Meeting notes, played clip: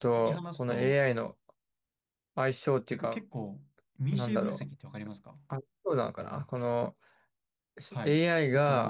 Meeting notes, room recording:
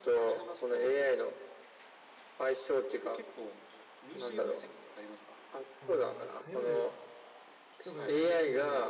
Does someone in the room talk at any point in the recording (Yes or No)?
Yes